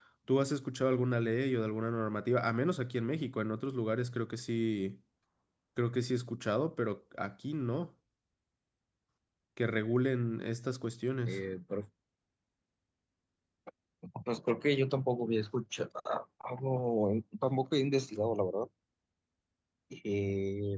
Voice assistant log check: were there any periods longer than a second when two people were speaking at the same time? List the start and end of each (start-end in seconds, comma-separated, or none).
none